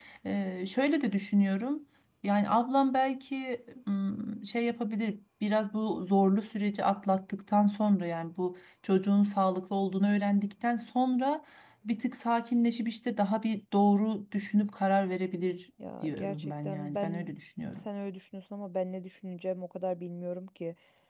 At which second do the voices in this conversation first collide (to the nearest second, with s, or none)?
16 s